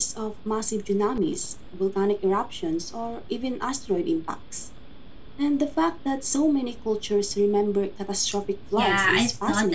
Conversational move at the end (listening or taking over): taking over